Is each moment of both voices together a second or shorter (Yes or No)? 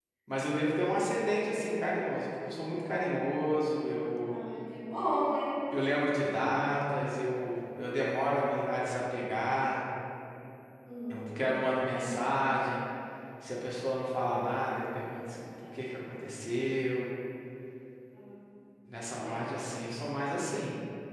Yes